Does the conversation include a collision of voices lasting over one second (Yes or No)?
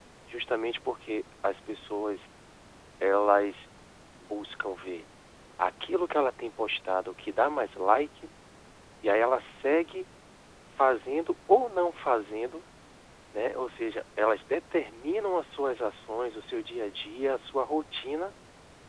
No